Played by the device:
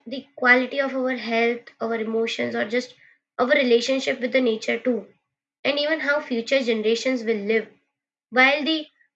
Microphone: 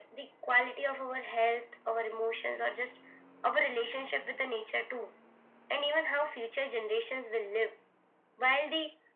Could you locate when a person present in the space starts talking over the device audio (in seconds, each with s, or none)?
none